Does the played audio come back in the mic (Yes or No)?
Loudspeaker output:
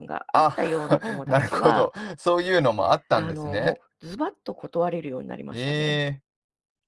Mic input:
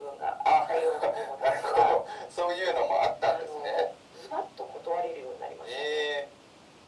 Yes